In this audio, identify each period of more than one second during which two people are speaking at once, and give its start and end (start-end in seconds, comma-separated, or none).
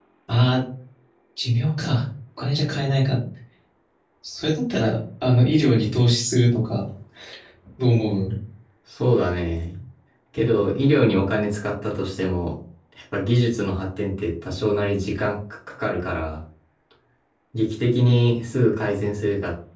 none